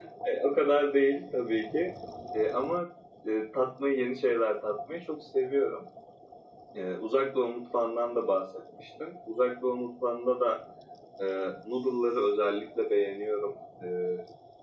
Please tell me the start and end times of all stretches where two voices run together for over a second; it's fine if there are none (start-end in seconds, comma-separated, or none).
none